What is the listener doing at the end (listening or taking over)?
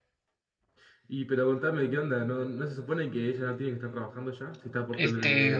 taking over